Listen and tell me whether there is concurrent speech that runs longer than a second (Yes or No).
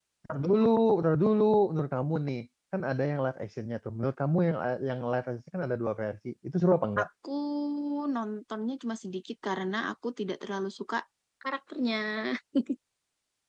No